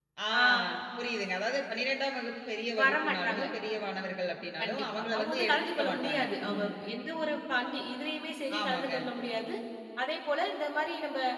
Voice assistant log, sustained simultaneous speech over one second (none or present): present